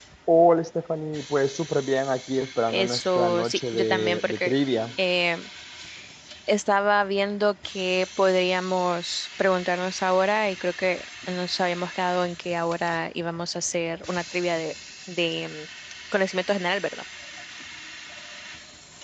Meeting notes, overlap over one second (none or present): present